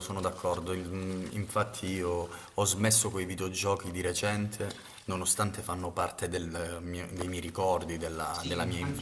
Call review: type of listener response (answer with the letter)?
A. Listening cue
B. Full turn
B